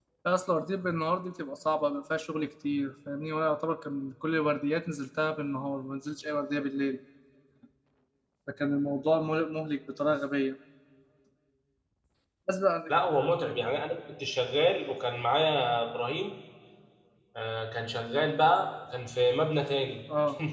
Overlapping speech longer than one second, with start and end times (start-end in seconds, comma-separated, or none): none